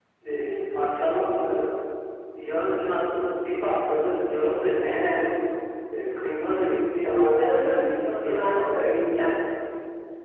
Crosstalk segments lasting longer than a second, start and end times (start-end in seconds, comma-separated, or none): 7.1-9.3